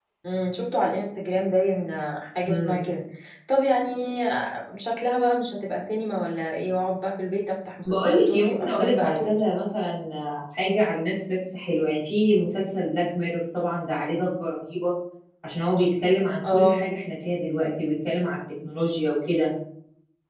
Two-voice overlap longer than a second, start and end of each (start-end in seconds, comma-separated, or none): 7.8-9.3